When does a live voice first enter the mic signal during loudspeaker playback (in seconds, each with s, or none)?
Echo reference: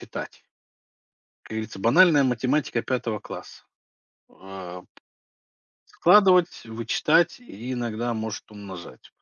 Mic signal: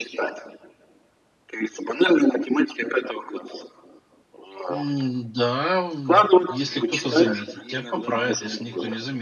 4.7 s